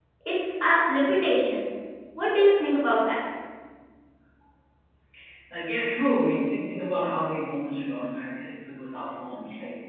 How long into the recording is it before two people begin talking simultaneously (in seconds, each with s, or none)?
none